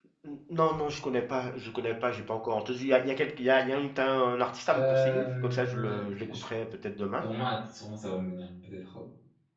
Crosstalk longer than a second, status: present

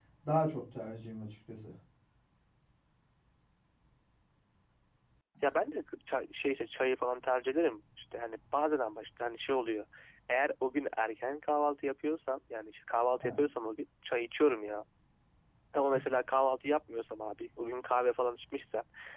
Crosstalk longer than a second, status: none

